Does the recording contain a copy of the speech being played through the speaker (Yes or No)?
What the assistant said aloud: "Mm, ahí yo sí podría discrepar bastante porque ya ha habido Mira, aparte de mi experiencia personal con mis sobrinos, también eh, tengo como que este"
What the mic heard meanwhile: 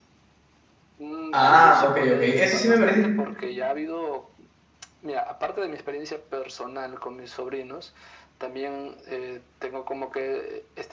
Yes